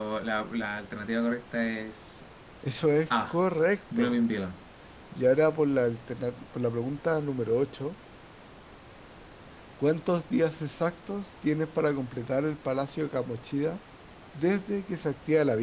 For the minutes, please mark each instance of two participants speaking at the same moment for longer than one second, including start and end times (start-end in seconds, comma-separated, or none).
none